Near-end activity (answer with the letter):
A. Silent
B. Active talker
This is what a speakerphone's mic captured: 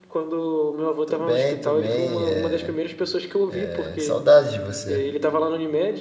B